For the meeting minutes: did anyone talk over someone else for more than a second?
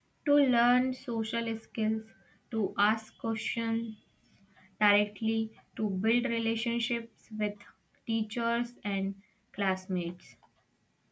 No

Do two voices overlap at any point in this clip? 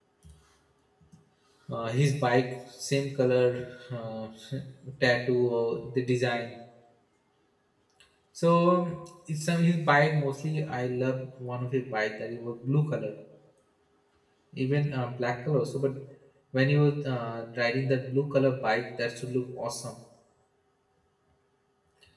No

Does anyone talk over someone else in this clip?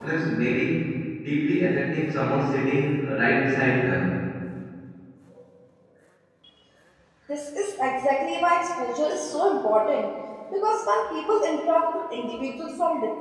No

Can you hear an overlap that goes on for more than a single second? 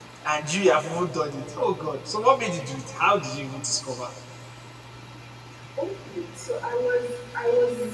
No

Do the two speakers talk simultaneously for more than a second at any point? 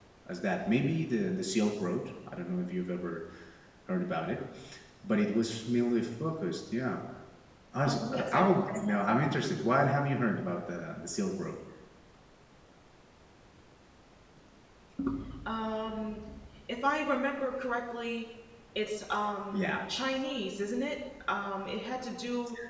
Yes, from 7.8 s

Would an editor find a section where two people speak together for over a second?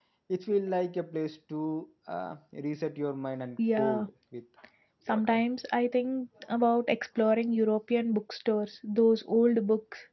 No

